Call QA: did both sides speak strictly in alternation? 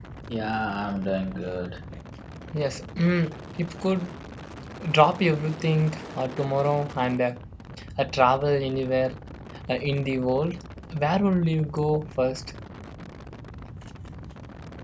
Yes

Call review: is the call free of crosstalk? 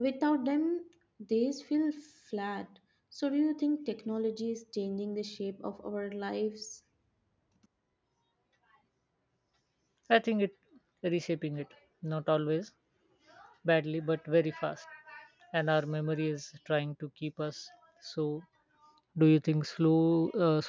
Yes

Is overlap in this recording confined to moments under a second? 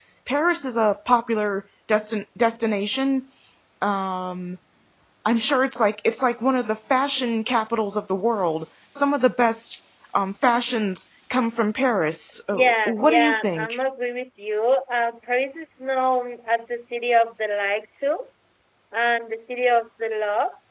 No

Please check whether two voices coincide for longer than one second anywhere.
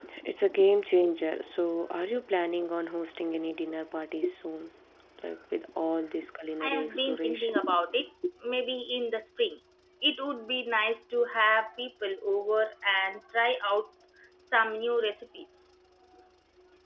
Yes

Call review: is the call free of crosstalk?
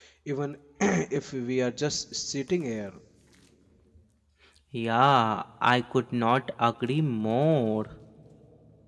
Yes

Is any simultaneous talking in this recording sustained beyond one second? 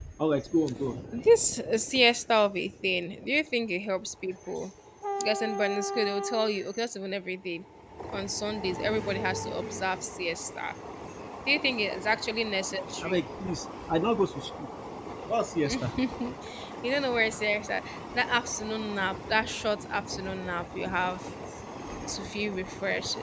No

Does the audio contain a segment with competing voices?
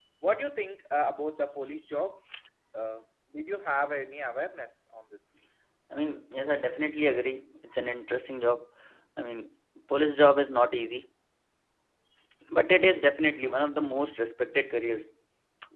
No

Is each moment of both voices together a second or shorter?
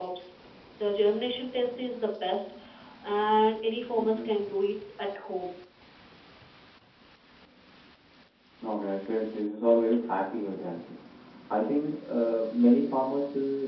Yes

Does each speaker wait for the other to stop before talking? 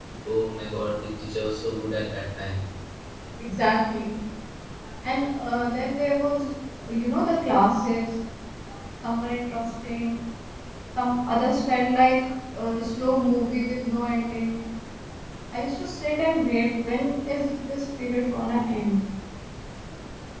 Yes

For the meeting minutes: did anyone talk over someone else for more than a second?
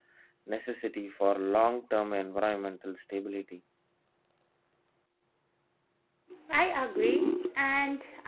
No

